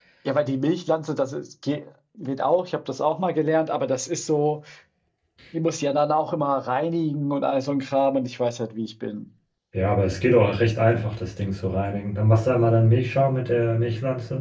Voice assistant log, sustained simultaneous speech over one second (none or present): none